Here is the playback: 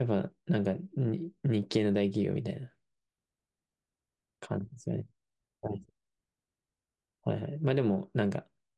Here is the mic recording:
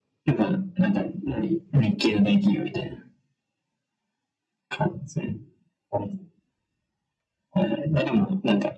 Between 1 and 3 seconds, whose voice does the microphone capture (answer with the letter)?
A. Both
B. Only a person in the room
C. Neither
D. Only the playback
D